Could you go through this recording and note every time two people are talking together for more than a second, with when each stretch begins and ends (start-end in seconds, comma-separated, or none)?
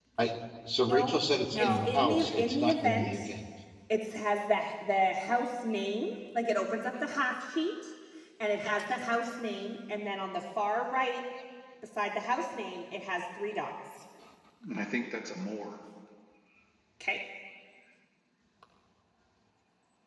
1.5-3.2